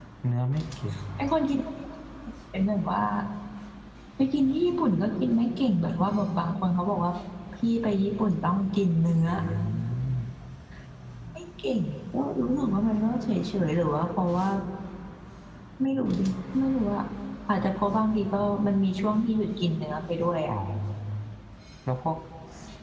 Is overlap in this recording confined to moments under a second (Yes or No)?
Yes